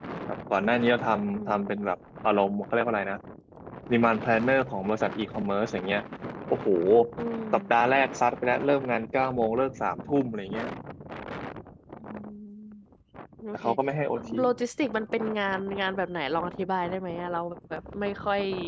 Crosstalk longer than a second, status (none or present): none